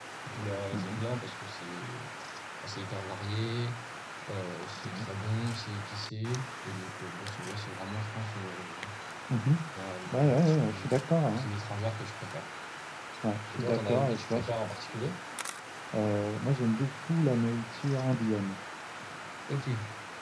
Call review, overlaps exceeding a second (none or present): present